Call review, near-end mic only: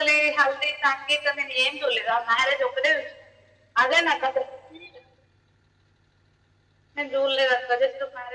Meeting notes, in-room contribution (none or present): none